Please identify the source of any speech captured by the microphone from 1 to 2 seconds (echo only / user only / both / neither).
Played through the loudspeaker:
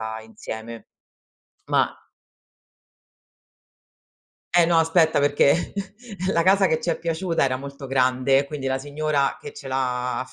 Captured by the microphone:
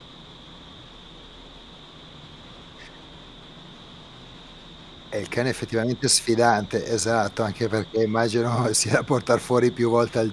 neither